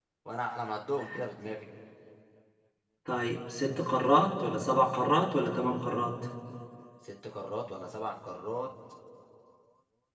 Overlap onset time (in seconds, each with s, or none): none